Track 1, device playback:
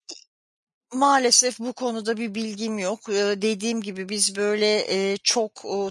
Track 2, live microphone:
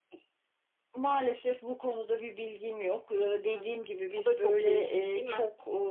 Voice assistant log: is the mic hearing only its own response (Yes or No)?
No